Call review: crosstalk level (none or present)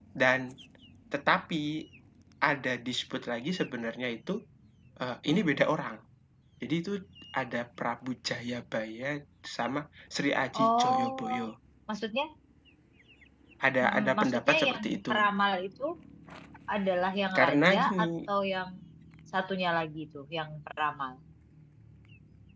present